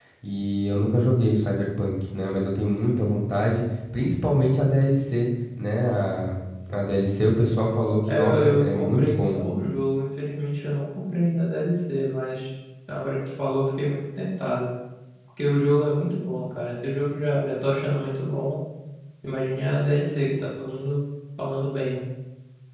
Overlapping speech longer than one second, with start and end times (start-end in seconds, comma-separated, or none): 8.1-9.4